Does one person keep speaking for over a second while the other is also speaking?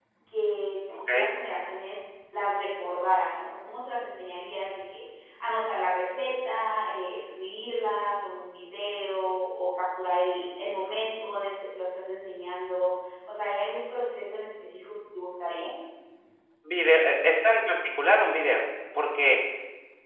No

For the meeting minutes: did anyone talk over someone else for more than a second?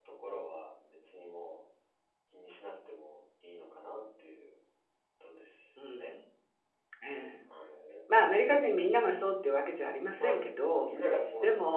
No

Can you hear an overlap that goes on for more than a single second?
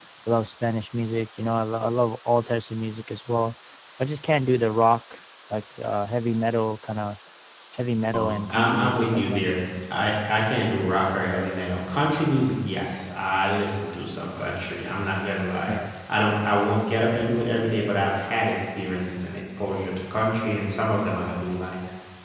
Yes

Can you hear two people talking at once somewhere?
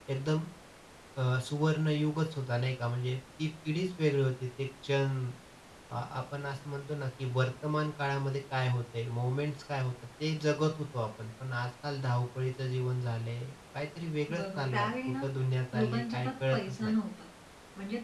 Yes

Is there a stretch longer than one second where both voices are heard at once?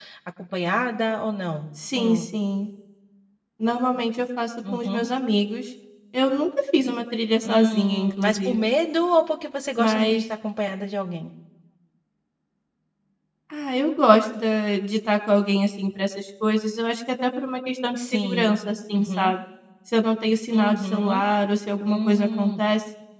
Yes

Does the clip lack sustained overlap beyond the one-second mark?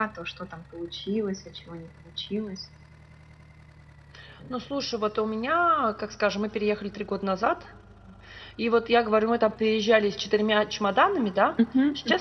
Yes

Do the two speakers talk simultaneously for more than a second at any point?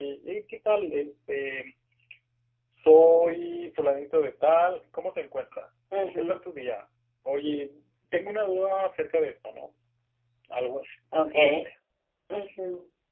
No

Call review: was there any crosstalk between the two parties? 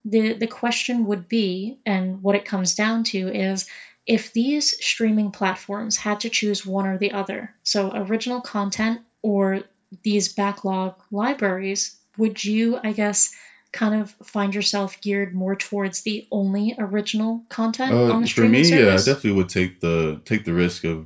Yes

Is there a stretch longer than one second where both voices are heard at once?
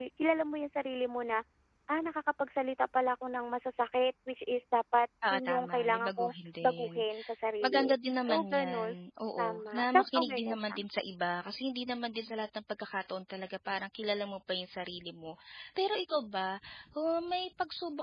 Yes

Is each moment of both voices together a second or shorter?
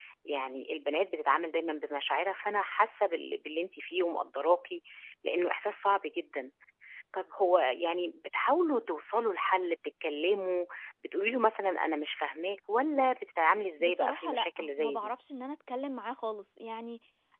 No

